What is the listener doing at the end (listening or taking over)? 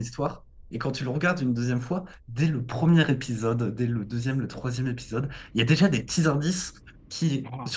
listening